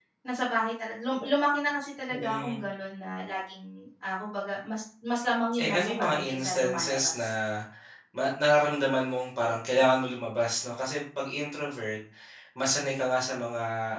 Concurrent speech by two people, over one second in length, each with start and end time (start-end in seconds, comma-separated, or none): 5.5-7.3